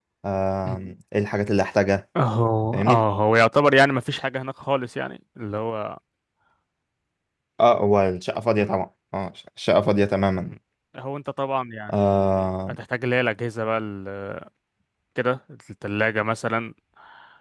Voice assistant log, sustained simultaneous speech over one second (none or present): none